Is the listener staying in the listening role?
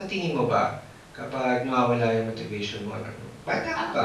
Yes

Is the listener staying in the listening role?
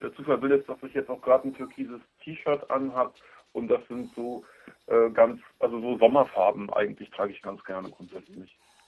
No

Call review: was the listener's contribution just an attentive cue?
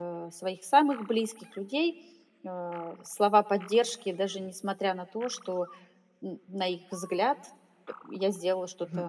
No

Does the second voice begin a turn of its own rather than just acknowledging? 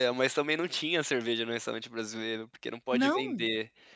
No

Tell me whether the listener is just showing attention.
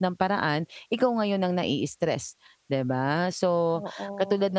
Yes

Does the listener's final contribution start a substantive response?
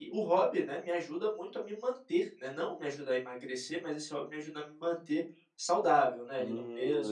Yes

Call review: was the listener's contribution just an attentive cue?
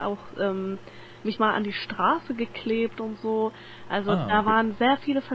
Yes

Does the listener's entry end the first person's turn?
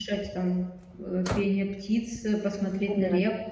No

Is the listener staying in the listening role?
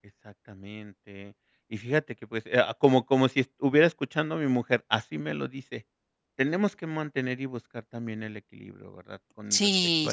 No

